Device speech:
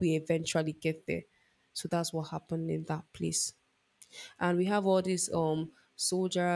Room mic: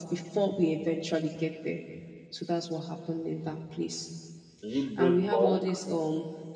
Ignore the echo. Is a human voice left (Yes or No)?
Yes